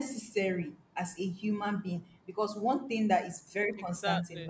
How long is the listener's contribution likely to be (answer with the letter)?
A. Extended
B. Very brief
B